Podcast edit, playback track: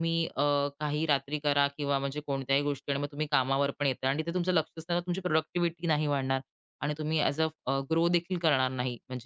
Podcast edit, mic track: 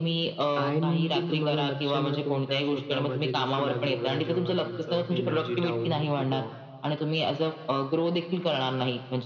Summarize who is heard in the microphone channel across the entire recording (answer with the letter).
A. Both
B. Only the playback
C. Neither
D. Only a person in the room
A